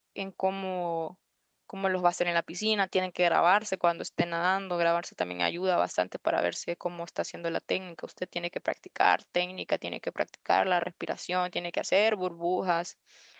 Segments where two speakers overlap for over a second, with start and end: none

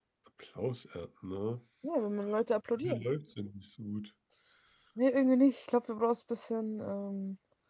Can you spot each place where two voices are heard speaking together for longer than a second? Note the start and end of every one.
none

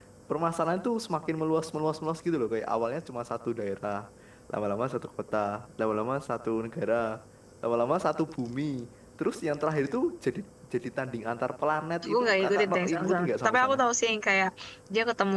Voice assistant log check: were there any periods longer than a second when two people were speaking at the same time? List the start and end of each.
12.0-13.8

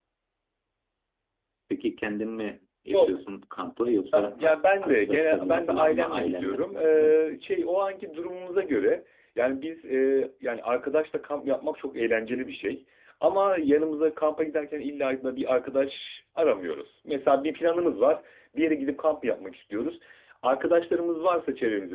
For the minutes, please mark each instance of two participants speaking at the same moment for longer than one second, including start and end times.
4.1-7.2

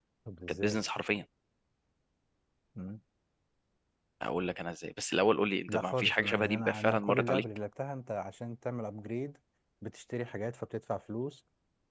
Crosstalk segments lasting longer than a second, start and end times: 5.7-7.4

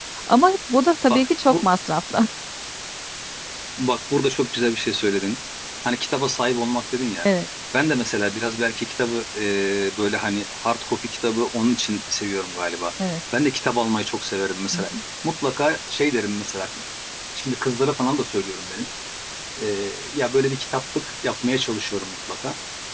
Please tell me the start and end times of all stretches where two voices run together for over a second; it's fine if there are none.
none

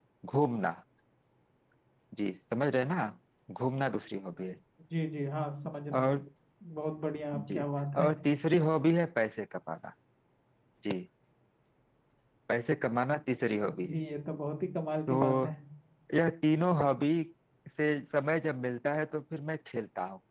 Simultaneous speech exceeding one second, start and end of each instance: none

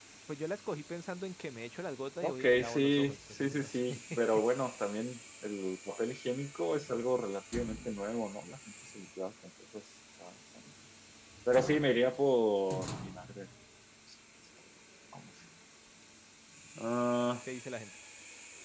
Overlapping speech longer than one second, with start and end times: 2.2-4.0

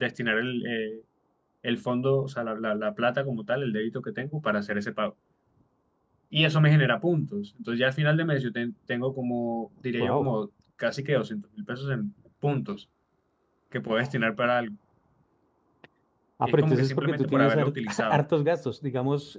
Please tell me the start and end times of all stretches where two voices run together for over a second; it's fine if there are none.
16.4-18.2

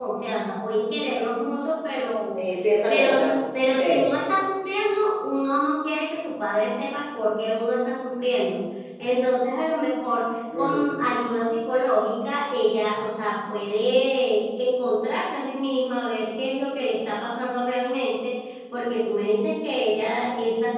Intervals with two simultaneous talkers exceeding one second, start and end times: none

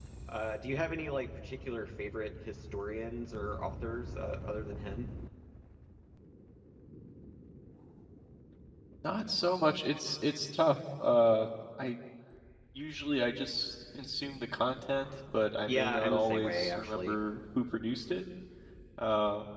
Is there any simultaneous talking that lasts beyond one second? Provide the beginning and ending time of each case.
15.7-17.2

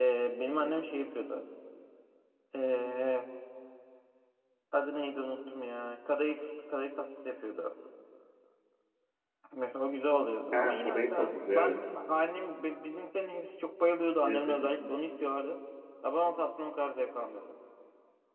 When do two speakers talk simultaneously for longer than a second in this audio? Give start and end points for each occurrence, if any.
10.5-11.8

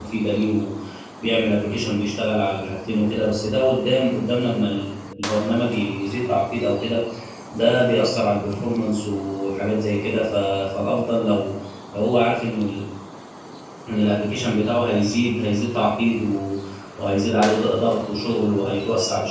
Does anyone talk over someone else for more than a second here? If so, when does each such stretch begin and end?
none

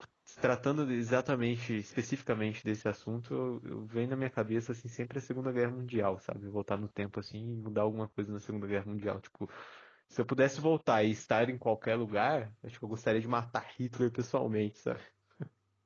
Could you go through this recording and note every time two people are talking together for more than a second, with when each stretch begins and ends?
none

